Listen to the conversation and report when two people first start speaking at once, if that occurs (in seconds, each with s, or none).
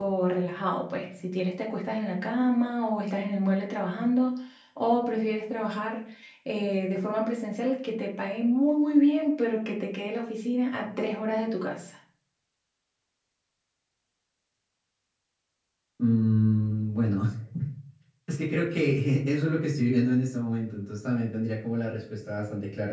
none